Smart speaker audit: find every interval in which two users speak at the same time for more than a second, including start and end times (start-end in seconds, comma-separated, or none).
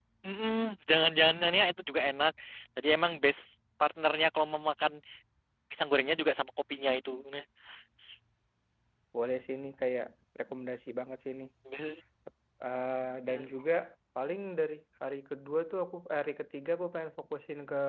none